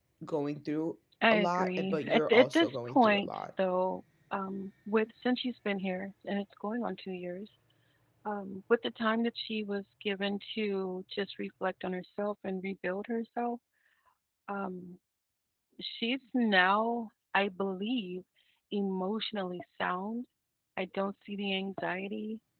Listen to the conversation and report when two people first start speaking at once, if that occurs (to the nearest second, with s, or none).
1 s